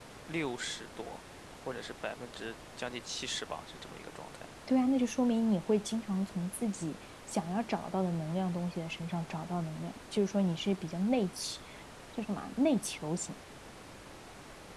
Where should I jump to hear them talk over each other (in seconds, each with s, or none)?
none